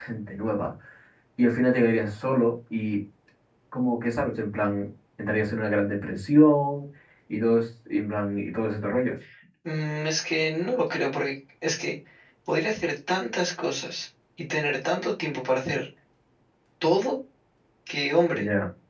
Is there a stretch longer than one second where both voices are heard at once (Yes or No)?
No